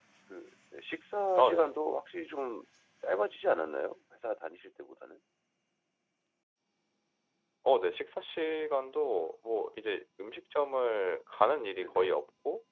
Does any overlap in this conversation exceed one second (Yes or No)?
No